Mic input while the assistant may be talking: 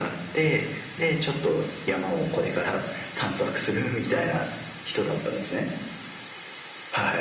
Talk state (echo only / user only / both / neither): echo only